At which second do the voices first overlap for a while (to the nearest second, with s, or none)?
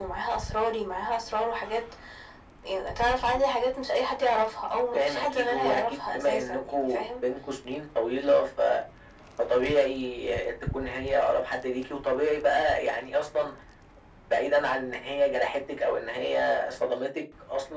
5 s